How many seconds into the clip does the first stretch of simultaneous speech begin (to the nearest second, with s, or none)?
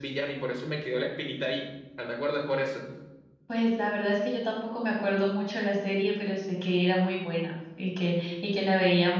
none